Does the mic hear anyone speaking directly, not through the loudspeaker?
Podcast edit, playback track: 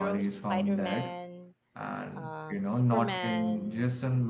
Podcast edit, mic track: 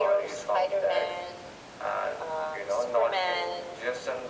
No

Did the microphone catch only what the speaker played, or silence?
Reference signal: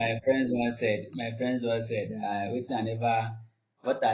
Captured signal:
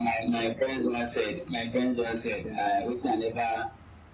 Yes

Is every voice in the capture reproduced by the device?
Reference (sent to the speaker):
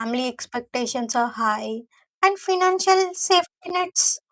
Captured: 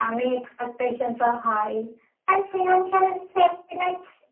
Yes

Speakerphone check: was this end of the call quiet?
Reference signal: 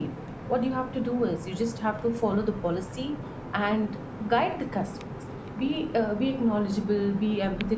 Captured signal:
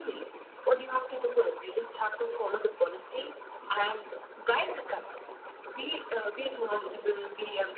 Yes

